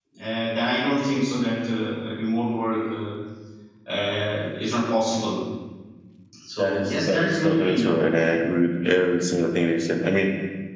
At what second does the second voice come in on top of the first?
6.6 s

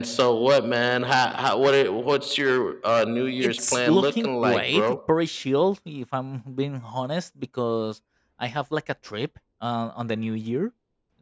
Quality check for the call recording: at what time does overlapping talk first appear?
3.4 s

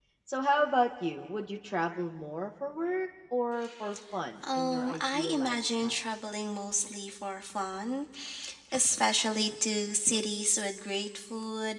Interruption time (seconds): 4.4 s

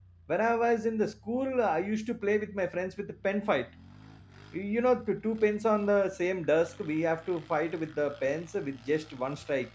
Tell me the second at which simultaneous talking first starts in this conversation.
none

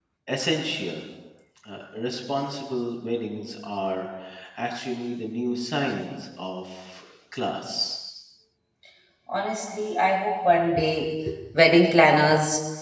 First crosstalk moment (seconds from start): none

